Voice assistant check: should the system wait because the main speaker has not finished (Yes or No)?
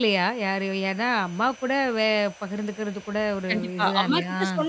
No